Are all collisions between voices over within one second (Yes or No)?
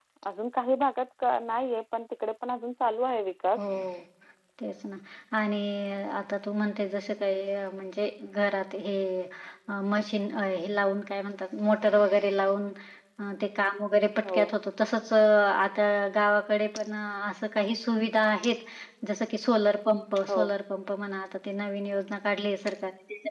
Yes